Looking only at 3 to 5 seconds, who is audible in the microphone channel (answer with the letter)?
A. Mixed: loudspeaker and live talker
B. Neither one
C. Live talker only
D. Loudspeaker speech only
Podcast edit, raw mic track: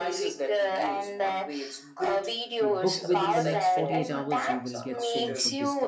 A